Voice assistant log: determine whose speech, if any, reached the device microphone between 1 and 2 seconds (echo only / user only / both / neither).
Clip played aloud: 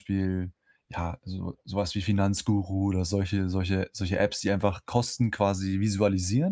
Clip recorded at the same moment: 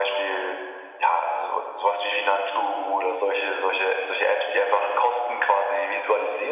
echo only